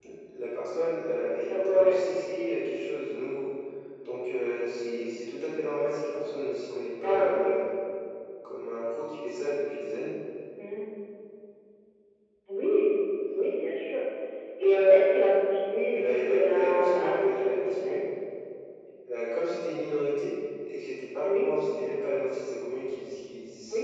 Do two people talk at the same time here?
Yes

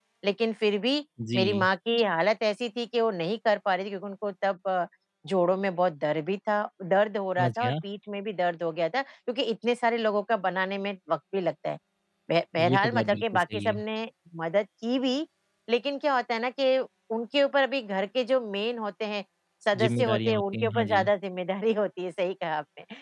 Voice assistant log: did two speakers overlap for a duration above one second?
Yes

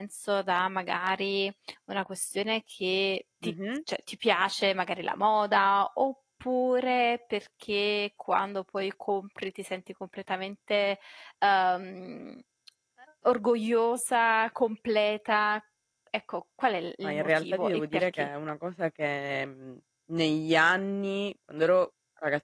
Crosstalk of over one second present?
Yes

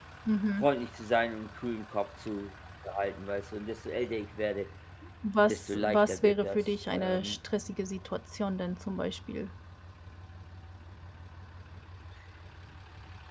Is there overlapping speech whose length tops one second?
Yes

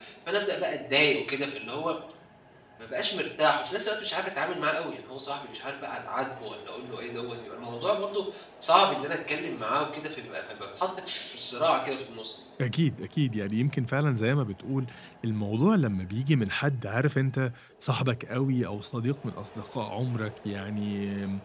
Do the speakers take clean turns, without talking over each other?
Yes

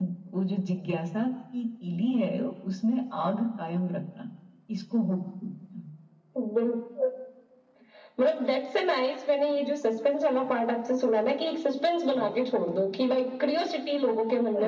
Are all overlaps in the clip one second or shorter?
Yes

